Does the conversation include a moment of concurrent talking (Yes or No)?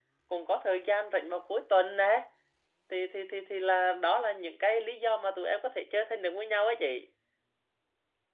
No